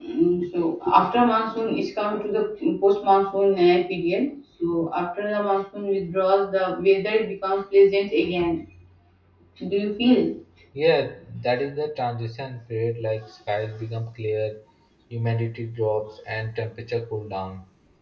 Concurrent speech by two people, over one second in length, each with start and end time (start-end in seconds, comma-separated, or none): none